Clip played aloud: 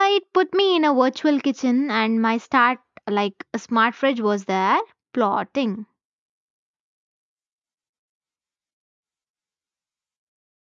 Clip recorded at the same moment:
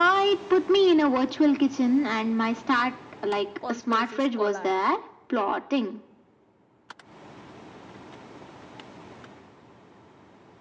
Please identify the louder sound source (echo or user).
echo